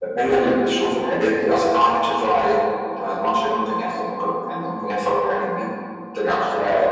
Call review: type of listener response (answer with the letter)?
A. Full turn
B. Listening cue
B